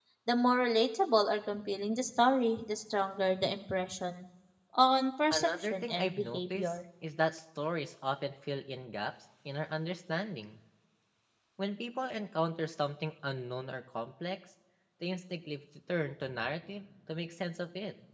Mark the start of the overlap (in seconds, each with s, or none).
5.3 s